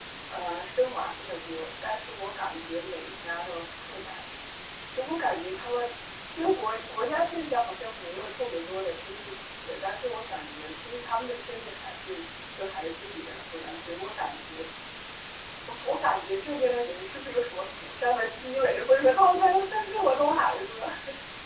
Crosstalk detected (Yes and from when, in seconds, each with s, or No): No